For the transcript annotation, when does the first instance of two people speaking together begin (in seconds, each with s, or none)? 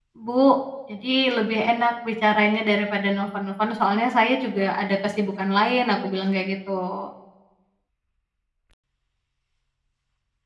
none